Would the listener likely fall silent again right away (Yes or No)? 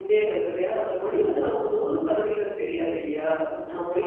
No